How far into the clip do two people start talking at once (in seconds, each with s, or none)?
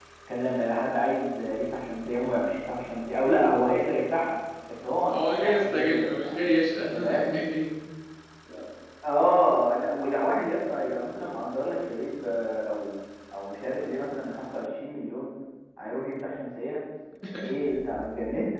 5.1 s